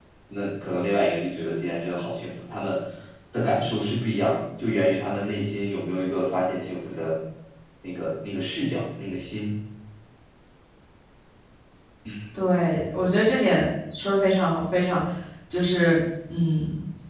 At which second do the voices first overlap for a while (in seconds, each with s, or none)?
none